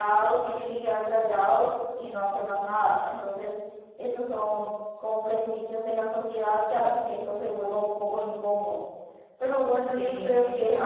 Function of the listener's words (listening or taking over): listening